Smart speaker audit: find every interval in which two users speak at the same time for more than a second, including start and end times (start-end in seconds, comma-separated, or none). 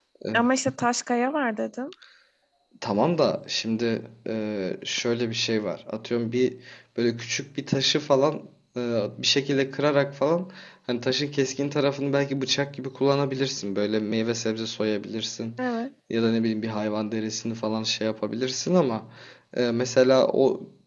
none